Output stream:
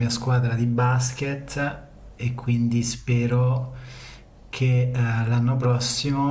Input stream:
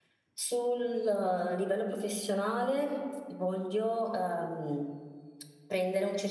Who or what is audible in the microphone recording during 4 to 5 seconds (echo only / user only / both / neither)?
user only